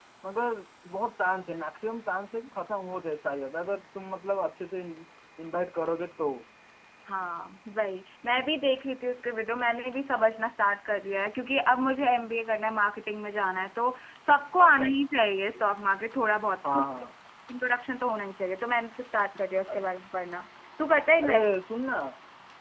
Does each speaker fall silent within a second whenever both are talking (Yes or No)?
Yes